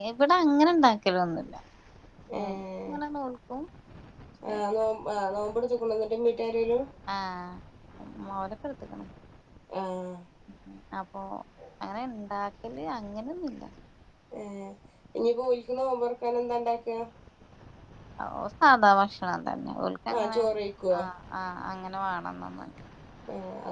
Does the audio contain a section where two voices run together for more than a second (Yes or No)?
No